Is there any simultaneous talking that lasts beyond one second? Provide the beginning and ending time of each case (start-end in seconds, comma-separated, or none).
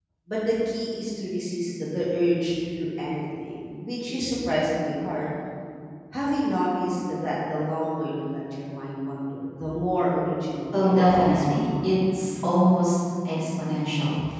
10.7-12.0